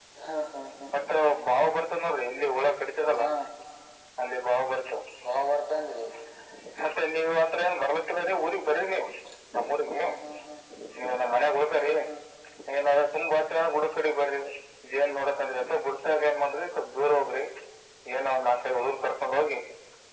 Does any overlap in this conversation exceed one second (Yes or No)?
No